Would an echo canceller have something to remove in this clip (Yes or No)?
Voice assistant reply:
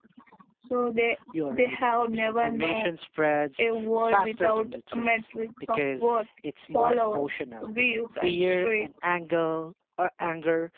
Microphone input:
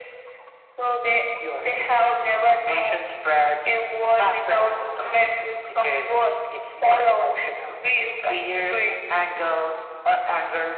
Yes